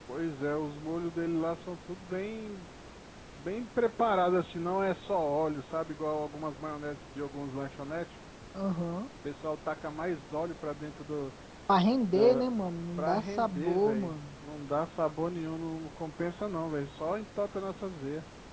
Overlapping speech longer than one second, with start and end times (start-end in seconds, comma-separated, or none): 13.0-14.2